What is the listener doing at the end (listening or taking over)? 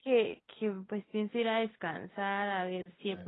listening